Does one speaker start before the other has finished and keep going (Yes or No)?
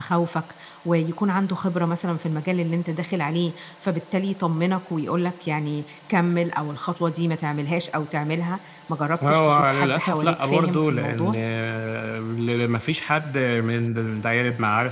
Yes